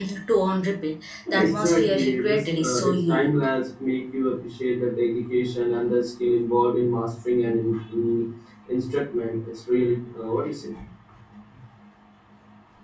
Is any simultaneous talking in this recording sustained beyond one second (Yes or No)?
Yes